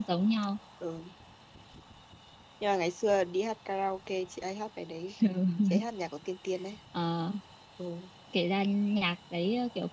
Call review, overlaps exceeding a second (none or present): none